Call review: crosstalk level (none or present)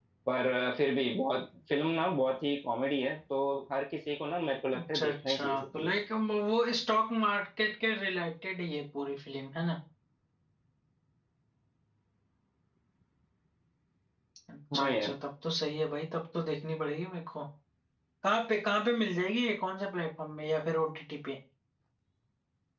present